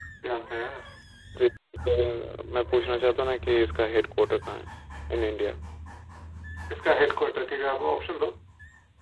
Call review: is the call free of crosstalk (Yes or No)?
Yes